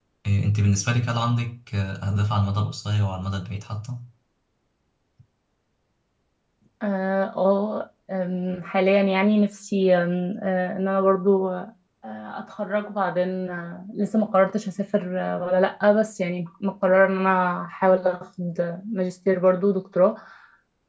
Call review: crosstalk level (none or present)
none